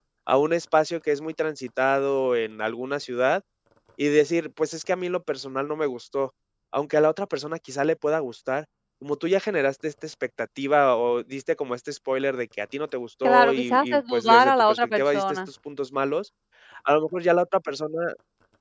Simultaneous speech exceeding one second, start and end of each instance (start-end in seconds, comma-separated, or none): 13.2-15.4